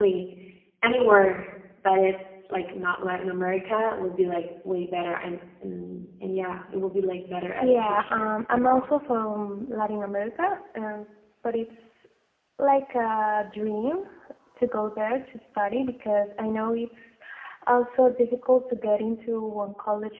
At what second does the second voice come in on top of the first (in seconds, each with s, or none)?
7.6 s